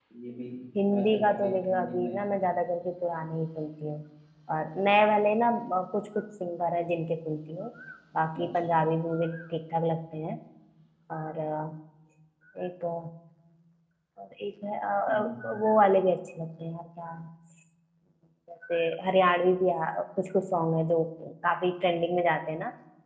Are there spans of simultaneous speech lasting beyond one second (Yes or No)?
Yes